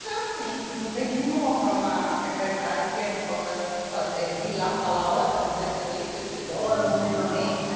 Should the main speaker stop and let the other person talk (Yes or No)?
Yes